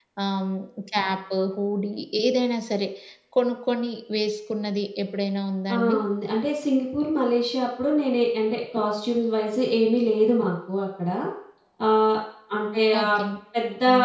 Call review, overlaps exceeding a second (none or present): none